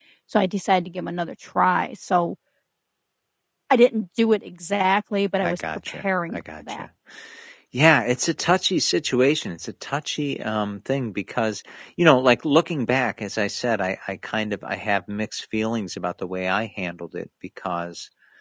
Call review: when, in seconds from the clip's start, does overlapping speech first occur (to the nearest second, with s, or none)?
5 s